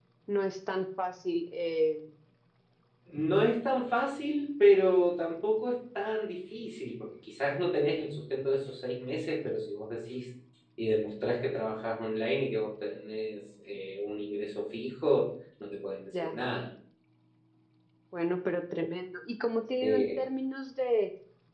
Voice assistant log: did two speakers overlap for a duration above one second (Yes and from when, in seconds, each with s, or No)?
No